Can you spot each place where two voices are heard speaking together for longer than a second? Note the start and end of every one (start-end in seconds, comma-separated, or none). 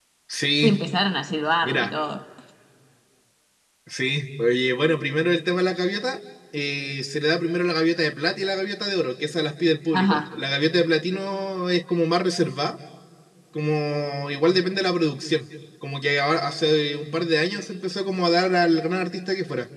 none